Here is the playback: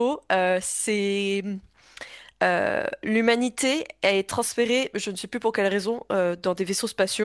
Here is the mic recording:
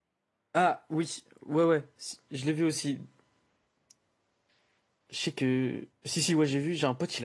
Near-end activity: present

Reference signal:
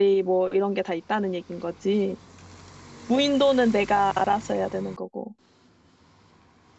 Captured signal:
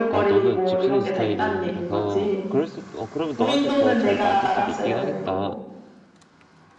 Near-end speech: present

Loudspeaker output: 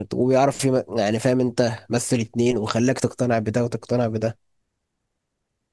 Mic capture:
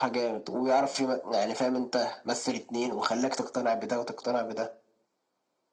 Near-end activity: none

